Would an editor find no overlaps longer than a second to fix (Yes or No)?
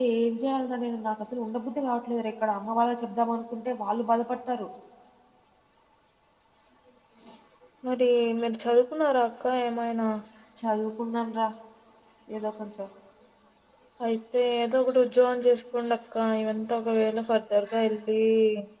Yes